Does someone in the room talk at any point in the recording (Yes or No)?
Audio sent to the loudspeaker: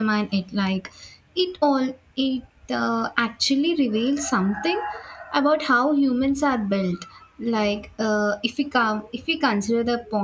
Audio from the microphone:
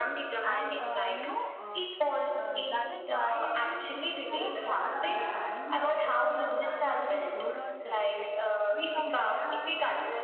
Yes